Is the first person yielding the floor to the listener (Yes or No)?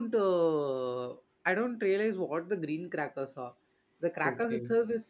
No